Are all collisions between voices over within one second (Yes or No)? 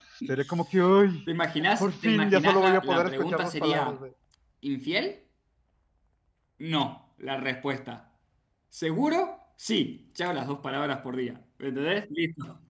No